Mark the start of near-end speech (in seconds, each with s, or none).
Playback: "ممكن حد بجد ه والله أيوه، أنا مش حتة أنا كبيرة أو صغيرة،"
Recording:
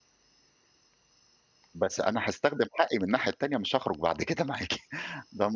1.7 s